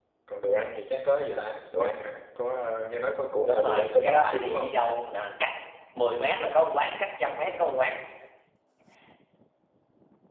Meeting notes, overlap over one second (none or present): present